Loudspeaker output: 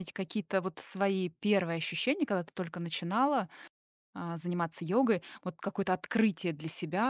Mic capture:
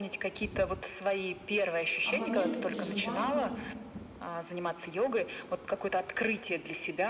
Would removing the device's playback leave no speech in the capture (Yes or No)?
No